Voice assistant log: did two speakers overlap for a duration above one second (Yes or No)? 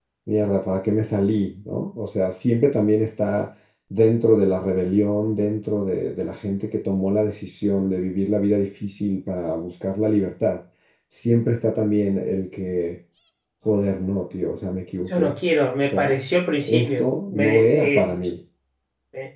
Yes